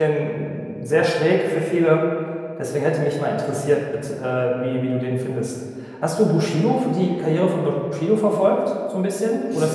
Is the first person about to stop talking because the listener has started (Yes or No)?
Yes